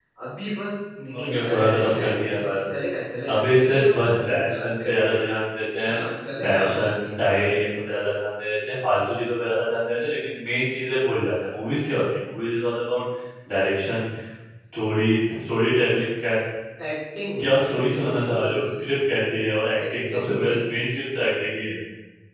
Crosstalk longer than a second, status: present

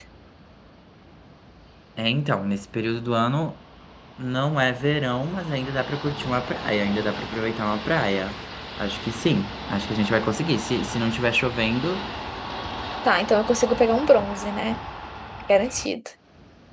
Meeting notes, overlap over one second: none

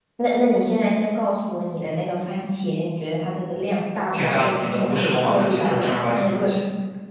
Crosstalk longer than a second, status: present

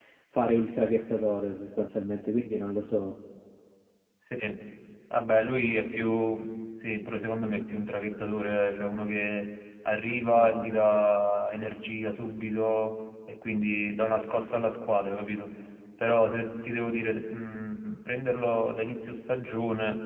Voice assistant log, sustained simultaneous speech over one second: none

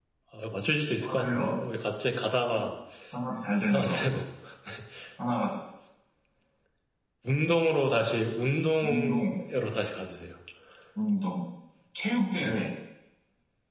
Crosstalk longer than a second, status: none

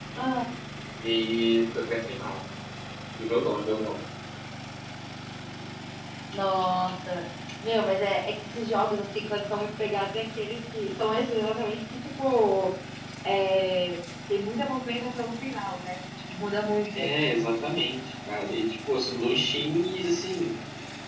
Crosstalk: none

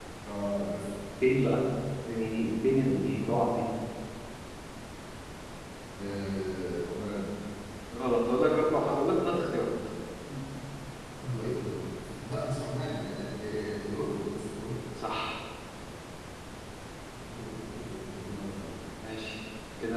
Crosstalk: none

